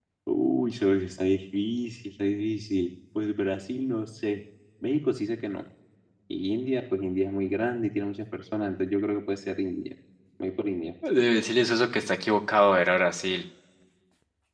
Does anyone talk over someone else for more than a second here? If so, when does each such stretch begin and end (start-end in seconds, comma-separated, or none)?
none